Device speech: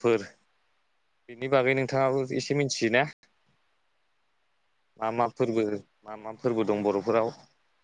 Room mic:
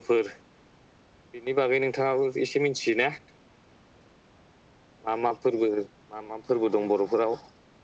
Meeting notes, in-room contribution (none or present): none